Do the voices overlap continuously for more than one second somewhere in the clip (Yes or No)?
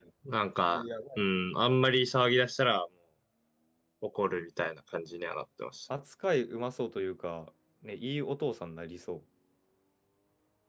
No